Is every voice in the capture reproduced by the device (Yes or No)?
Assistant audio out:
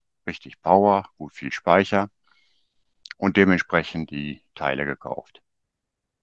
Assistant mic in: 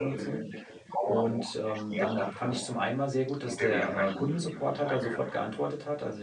No